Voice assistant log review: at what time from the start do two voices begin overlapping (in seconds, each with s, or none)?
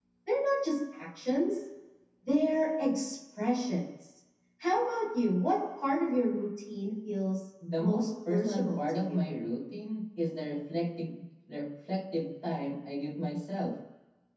7.6 s